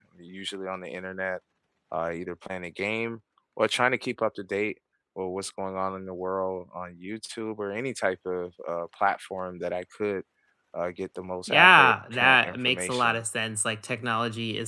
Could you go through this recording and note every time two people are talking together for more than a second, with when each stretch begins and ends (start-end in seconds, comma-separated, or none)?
11.5-13.2